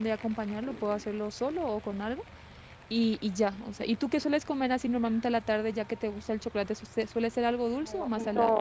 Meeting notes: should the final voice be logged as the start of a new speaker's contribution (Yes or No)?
Yes